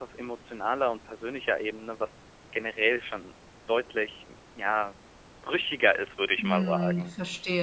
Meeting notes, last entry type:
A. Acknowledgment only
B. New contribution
B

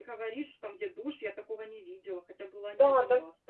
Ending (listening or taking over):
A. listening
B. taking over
B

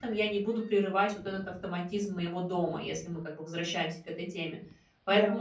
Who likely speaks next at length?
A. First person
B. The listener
A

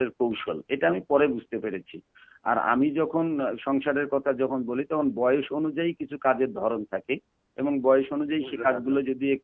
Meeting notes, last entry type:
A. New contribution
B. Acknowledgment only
B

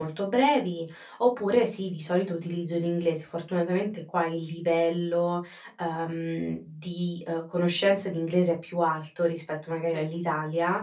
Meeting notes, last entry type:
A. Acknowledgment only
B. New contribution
A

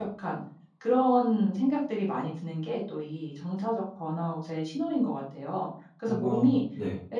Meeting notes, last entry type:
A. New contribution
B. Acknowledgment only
B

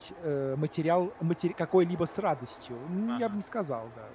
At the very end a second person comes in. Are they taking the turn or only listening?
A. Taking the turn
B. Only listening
B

